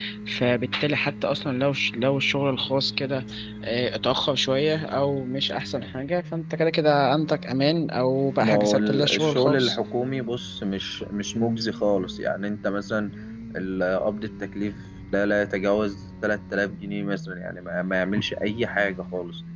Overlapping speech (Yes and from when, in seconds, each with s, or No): Yes, from 8.4 s